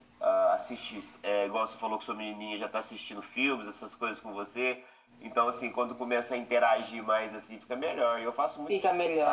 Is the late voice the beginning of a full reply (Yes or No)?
Yes